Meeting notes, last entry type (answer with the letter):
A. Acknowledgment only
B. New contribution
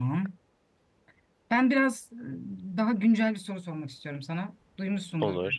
A